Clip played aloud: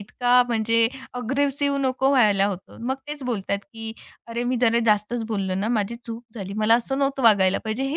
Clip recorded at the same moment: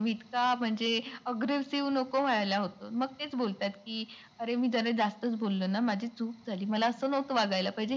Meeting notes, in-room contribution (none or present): none